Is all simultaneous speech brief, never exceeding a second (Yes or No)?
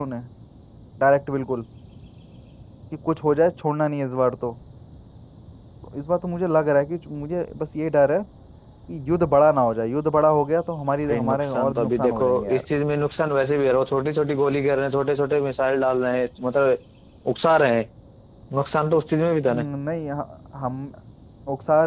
No